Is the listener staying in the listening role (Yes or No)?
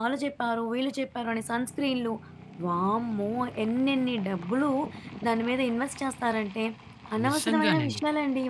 Yes